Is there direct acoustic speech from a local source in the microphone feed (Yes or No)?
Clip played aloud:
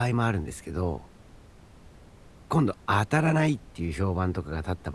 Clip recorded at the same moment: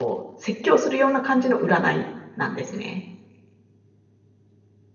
Yes